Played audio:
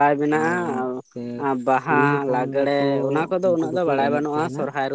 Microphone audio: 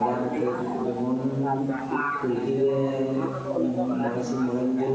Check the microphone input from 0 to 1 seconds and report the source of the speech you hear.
both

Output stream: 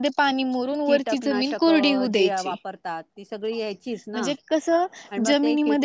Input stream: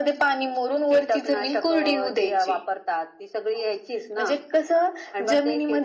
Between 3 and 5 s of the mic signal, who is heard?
echo only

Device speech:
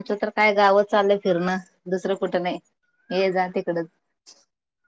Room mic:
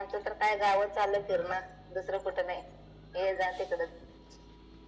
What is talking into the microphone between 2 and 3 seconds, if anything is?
echo only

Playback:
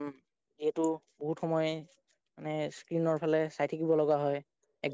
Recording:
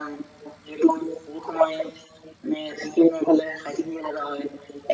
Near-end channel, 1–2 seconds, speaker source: echo only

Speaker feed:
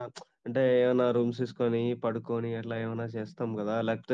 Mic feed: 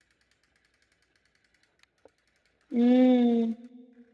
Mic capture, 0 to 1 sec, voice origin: neither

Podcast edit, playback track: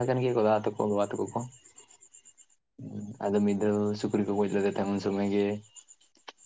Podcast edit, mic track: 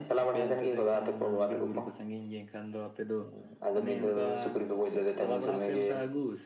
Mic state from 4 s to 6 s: both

